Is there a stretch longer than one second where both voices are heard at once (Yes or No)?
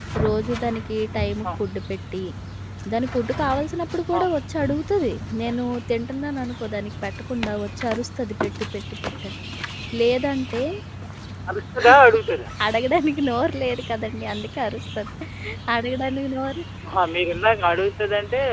No